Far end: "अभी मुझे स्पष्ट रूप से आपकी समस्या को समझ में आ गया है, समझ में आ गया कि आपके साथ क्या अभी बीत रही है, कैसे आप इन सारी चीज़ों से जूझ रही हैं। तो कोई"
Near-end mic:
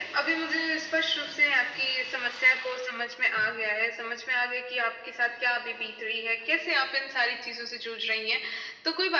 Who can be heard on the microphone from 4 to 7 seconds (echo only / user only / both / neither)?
echo only